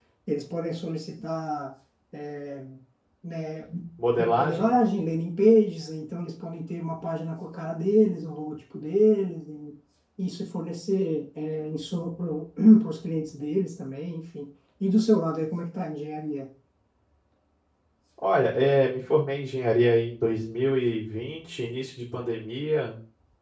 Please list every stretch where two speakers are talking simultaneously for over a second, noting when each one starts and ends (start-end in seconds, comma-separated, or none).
none